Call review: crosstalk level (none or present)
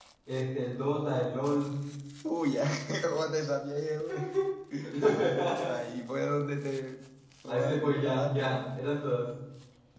present